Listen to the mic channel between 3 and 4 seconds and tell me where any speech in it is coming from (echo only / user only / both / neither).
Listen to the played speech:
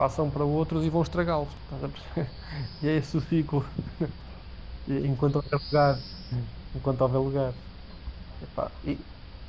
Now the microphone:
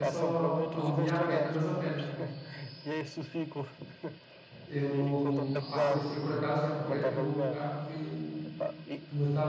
echo only